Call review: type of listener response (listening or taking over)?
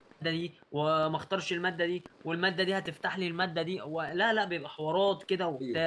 listening